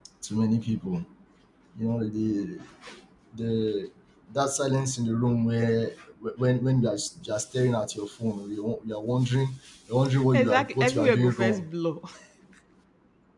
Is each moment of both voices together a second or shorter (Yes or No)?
No